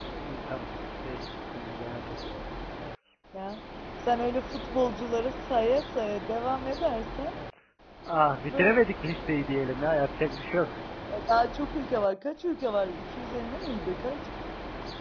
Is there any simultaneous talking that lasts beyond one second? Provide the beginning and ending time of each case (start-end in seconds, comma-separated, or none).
none